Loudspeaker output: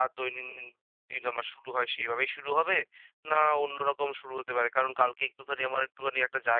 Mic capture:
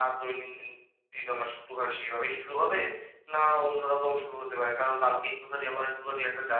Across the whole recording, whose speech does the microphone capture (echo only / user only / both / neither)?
echo only